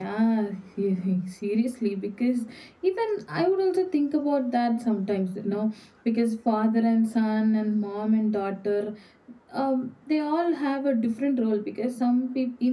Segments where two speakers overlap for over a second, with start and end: none

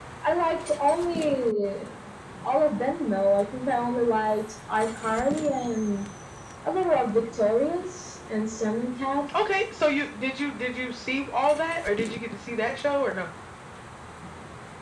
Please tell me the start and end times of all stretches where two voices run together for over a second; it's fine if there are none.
none

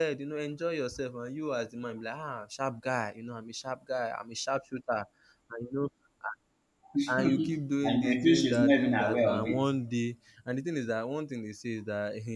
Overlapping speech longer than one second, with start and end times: 7.8-9.7

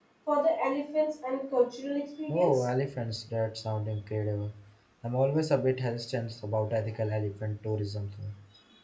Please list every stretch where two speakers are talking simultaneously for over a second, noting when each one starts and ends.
none

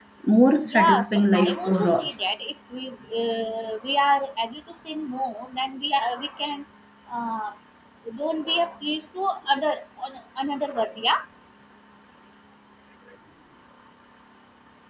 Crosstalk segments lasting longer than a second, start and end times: 0.7-2.1

